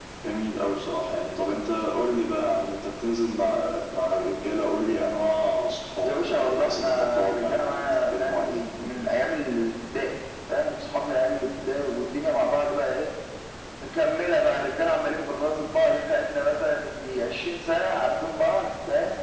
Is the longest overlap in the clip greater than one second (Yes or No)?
Yes